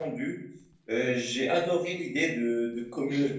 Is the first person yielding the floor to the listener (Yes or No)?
No